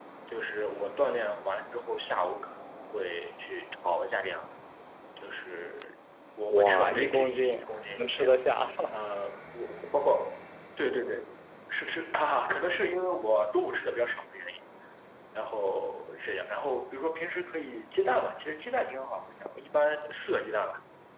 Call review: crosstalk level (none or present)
present